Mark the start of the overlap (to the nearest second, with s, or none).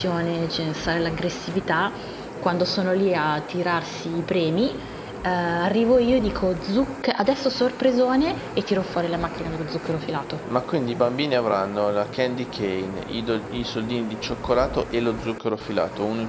none